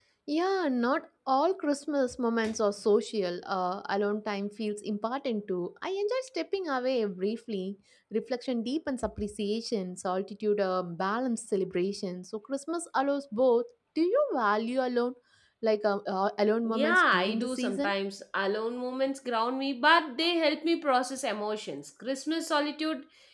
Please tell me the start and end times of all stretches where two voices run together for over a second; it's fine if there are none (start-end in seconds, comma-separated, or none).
16.6-17.9